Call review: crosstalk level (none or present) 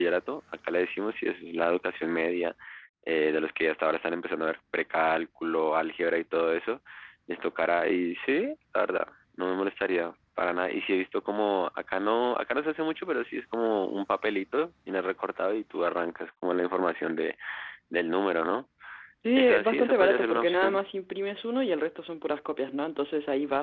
present